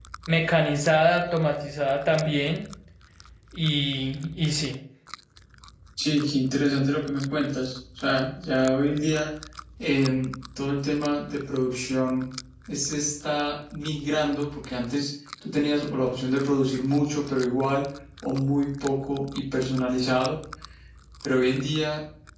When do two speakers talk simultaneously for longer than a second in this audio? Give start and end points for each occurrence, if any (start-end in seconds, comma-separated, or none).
none